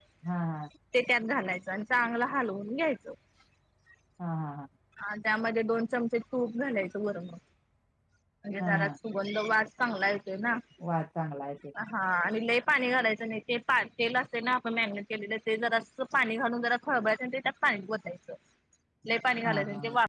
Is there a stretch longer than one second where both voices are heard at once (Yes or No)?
No